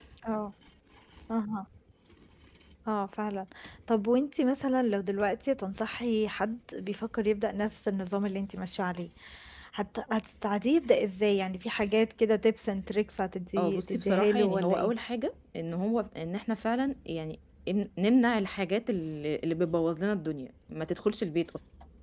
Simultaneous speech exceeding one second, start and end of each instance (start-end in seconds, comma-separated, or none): 13.6-14.9